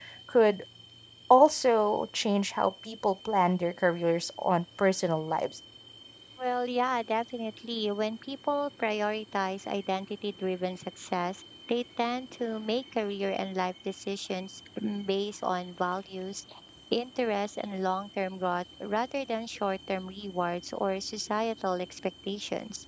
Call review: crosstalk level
none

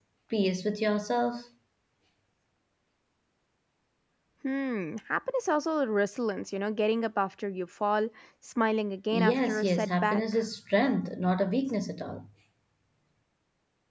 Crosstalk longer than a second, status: present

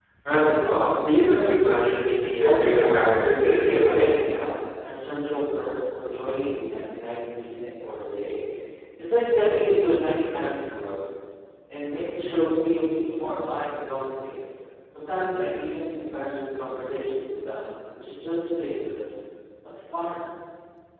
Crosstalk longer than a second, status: present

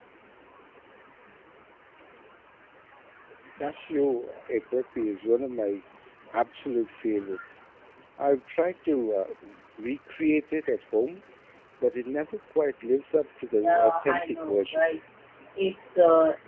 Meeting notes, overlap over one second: present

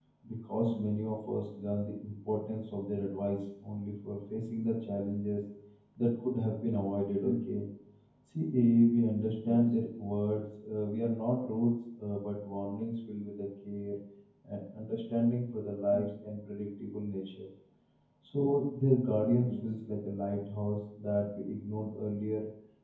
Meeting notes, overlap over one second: none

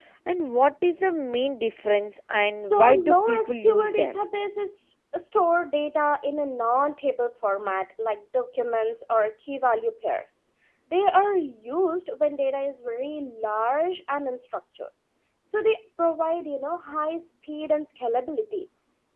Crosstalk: present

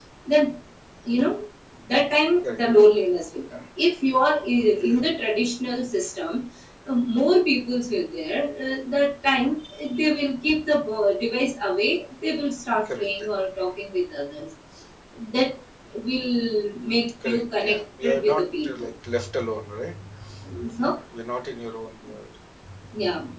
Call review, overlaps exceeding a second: present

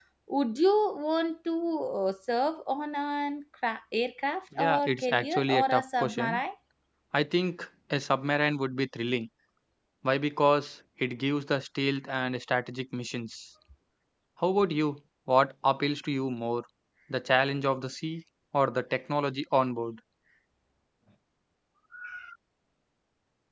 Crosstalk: present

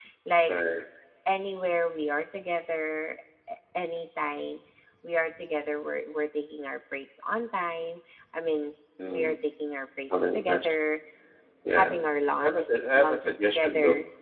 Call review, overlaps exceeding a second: present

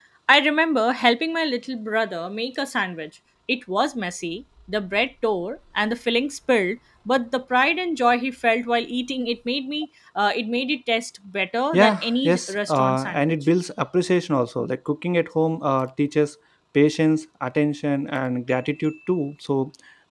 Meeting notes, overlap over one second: present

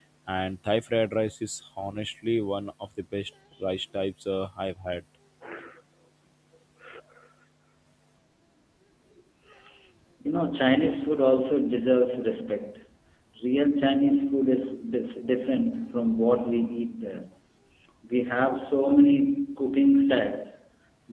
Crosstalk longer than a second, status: none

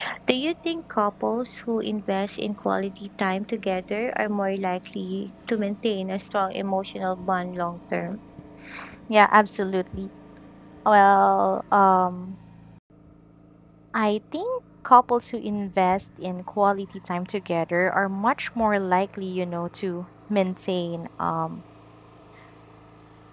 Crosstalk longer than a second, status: none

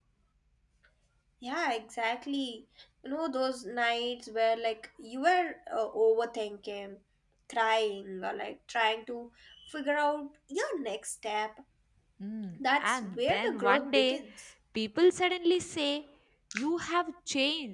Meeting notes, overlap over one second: present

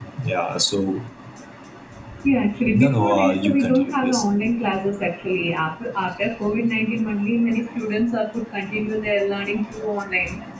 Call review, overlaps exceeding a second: present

